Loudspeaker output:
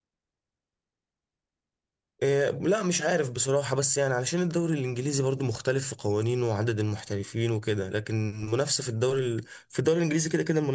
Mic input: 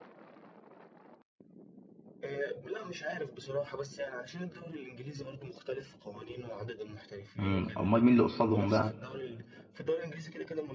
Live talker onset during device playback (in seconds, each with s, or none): 7.4 s